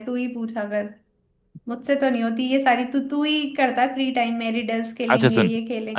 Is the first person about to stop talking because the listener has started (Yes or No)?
Yes